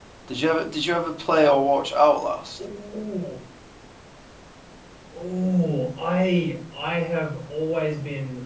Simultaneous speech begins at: none

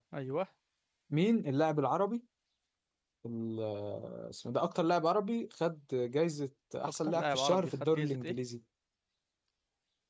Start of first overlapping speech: 6.8 s

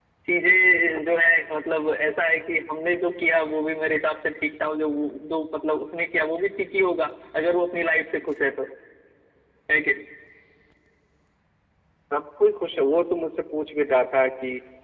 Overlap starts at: none

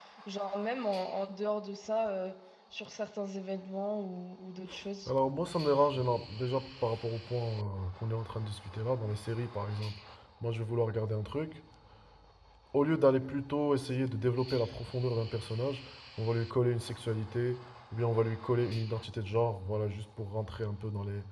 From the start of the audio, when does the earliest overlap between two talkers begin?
none

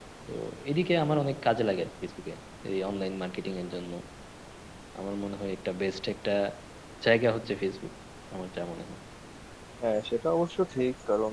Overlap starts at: none

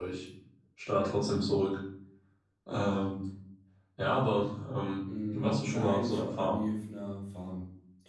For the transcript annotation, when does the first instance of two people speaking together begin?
5.3 s

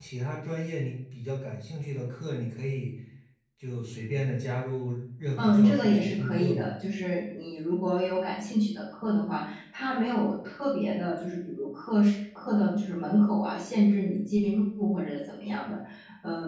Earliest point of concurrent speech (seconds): 5.4 s

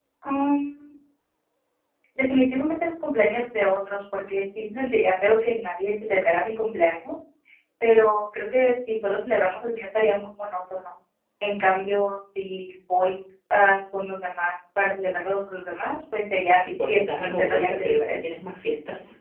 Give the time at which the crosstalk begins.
16.5 s

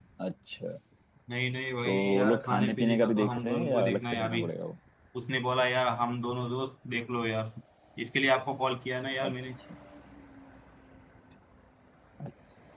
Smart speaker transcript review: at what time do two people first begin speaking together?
1.8 s

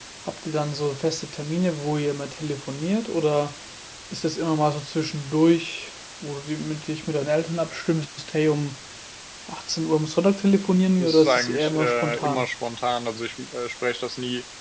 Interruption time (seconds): 11.0 s

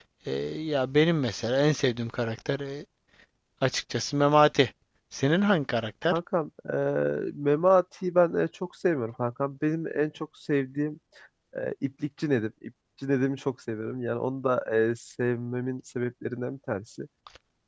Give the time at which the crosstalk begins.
none

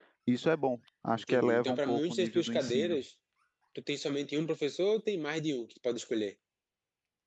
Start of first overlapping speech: 1.1 s

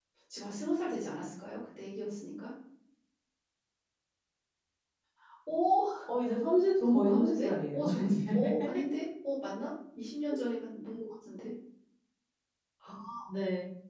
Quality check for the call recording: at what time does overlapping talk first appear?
6.8 s

